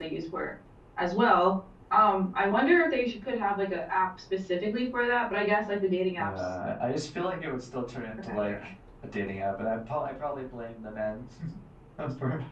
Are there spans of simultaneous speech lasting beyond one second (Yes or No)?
No